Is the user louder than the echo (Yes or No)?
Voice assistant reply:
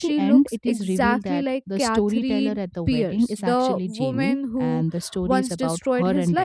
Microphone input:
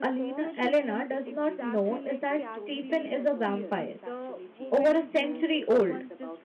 Yes